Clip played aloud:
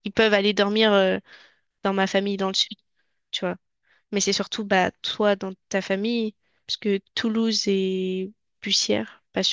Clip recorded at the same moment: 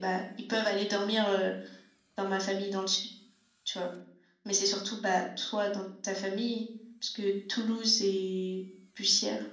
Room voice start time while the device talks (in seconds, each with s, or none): none